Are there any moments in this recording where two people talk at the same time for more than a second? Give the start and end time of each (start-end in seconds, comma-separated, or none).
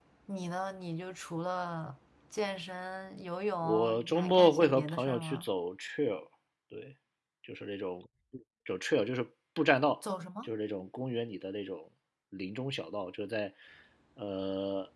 3.6-5.5